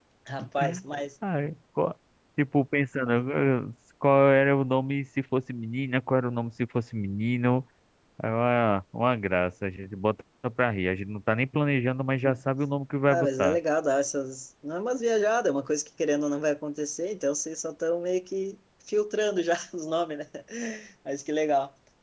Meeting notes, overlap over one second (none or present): none